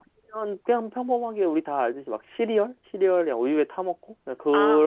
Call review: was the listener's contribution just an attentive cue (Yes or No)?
No